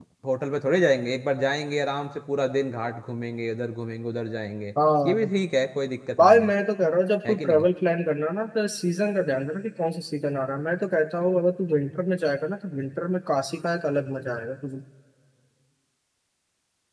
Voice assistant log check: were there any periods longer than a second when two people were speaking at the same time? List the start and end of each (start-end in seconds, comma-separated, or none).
none